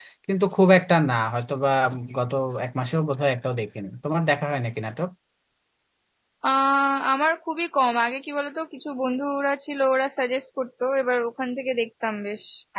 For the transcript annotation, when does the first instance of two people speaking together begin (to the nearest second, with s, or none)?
none